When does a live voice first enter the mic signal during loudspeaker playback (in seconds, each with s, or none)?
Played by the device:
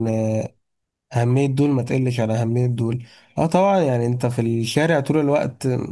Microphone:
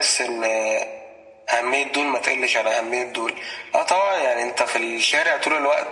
none